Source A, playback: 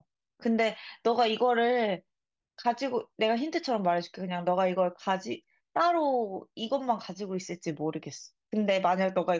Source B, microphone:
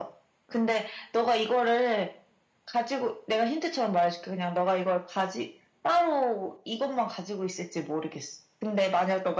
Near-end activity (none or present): none